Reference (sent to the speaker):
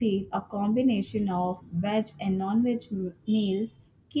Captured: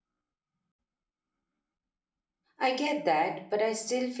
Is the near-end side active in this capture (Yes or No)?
Yes